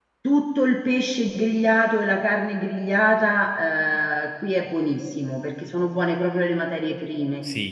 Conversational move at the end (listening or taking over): listening